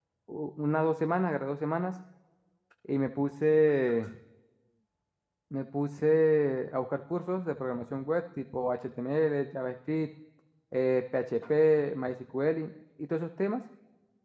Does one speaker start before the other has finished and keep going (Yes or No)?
No